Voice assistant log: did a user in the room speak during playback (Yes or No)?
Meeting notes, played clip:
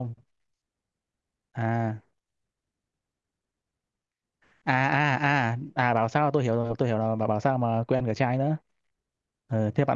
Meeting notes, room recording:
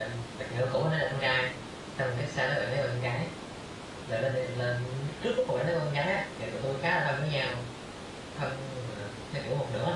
Yes